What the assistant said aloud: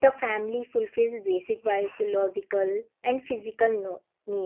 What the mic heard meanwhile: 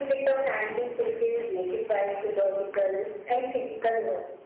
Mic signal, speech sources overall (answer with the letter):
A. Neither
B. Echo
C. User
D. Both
B